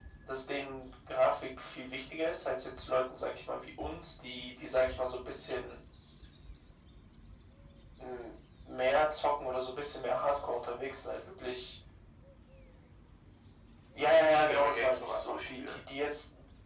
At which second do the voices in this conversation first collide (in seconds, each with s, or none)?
14.0 s